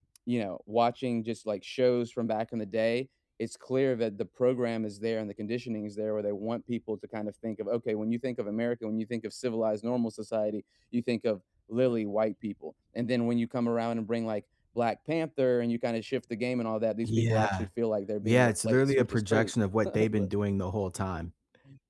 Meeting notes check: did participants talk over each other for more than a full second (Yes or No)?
Yes